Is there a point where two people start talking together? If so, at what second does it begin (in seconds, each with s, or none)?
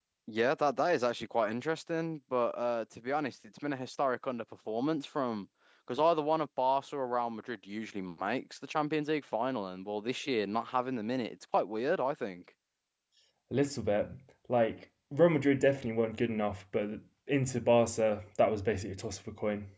none